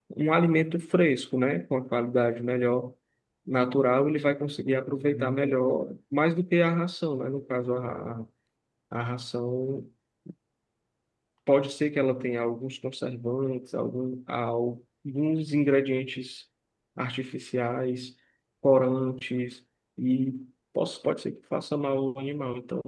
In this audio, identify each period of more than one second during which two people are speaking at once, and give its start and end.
none

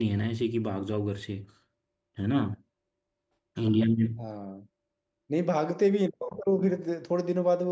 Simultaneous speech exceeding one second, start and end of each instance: none

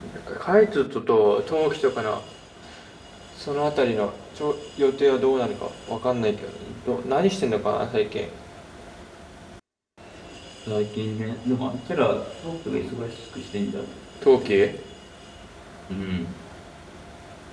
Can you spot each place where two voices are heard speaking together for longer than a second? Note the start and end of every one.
none

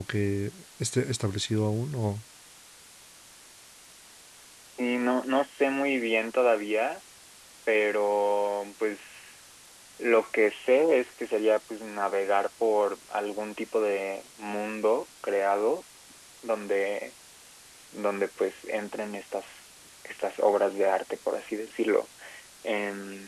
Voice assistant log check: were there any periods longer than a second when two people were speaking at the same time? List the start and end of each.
none

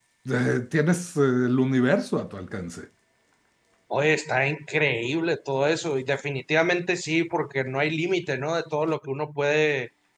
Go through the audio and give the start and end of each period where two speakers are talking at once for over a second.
none

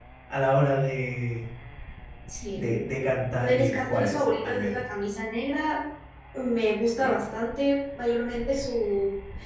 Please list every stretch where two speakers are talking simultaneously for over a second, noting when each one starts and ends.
3.4-4.8

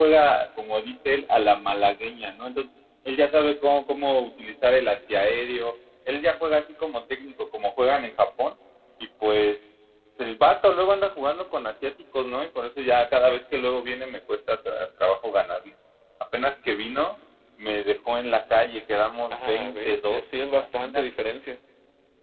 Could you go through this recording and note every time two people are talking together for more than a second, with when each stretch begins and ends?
19.3-21.1

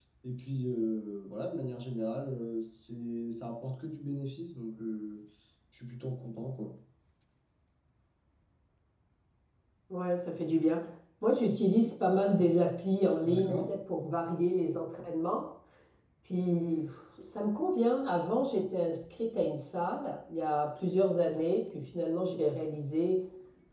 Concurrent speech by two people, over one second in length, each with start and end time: none

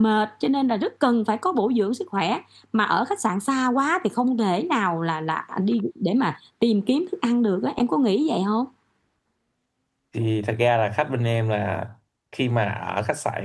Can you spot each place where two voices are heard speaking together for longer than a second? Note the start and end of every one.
none

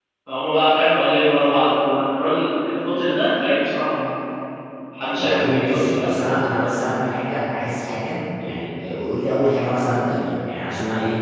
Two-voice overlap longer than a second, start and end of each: 5.2-6.5

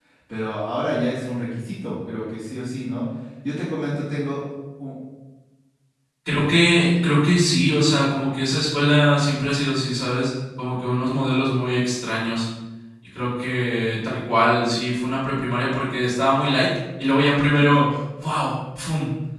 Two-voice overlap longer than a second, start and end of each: none

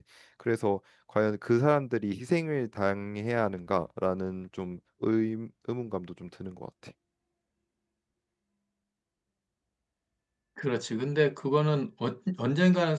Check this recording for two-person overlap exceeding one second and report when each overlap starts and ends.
none

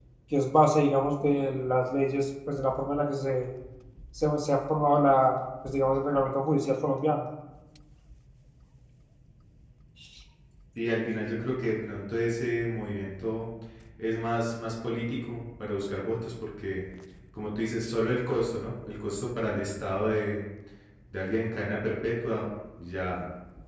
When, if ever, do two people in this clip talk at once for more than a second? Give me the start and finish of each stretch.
none

